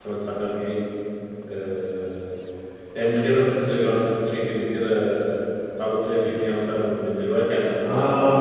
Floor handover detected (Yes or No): Yes